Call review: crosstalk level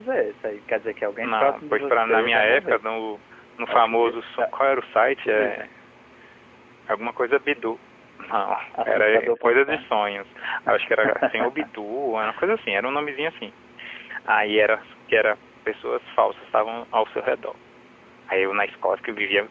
present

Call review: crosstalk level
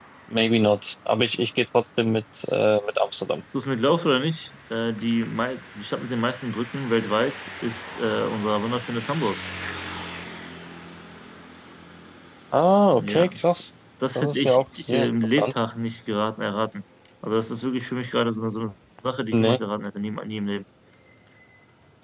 present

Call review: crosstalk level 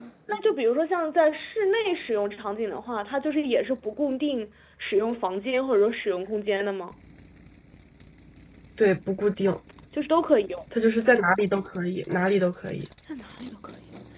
none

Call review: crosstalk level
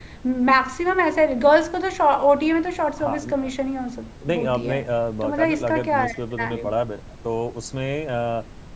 present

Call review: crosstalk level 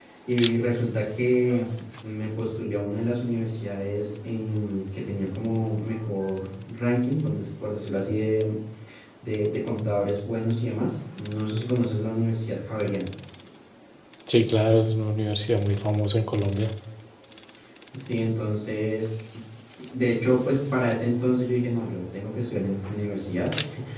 none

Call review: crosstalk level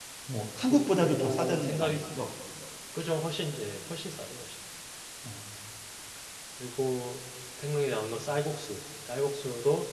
present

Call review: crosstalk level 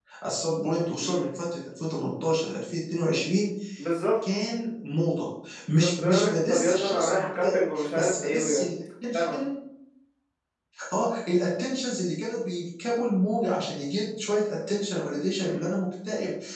present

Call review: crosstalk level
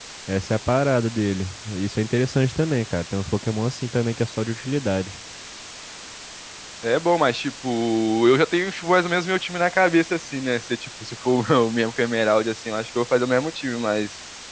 none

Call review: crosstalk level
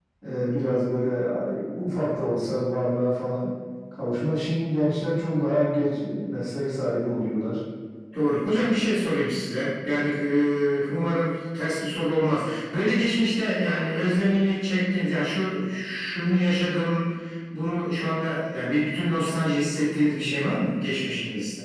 none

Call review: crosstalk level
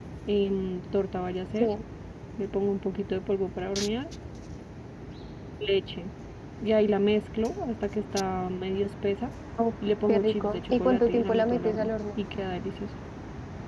present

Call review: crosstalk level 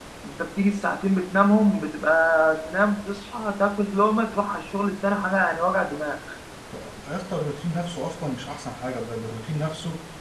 none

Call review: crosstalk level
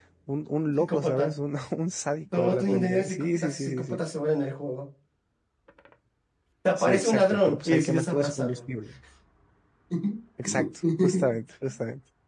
present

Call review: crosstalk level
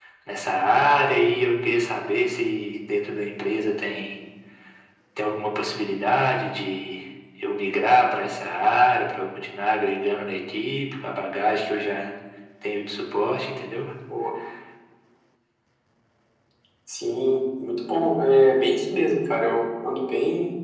none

